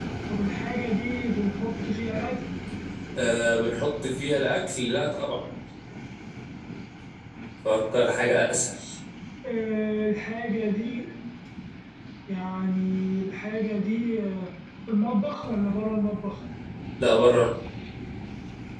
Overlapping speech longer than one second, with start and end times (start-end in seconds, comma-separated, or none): none